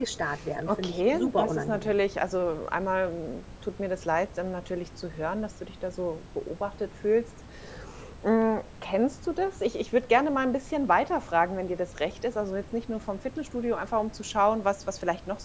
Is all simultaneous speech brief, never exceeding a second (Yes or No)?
No